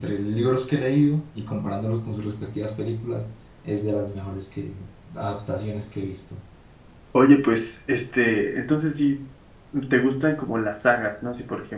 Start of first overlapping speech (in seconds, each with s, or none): none